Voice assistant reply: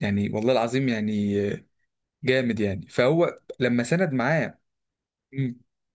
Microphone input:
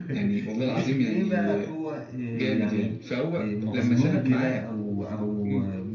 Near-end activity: present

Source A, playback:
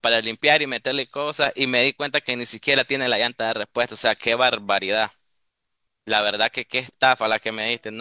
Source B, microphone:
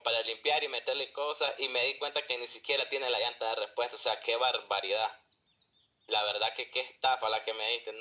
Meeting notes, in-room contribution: none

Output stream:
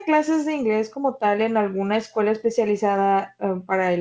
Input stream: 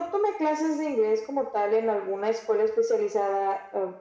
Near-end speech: none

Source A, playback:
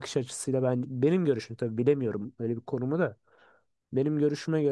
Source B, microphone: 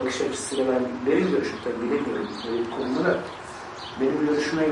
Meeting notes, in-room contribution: none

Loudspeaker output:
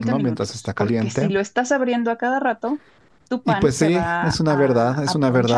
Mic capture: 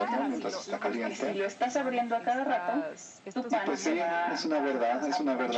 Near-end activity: present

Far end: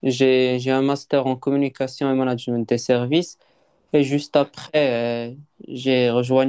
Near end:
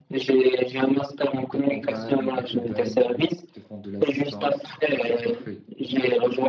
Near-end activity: present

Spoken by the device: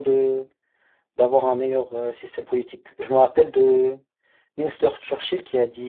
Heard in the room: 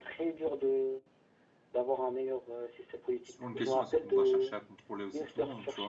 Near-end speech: present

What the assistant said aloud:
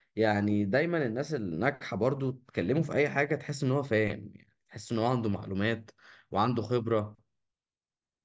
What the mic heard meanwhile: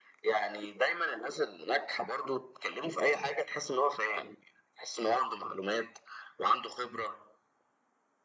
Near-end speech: none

